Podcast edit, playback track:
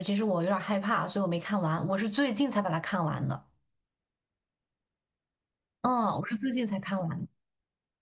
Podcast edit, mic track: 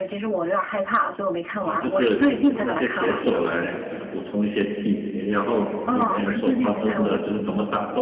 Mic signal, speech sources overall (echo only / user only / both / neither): both